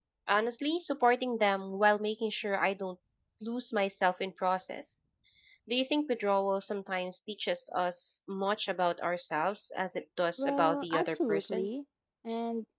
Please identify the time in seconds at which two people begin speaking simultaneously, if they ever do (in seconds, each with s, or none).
10.4 s